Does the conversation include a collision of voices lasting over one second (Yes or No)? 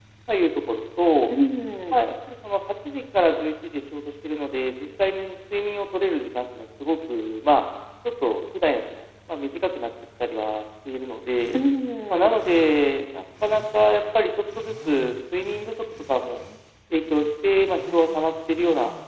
No